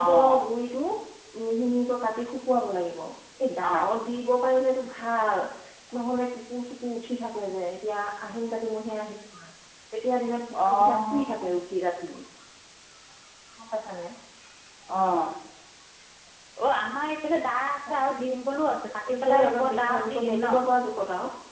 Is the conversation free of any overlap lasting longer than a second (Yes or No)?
No